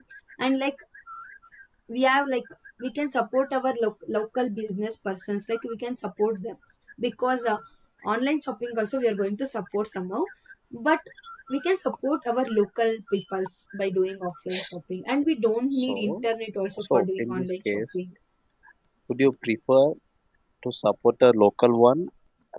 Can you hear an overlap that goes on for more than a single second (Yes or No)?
Yes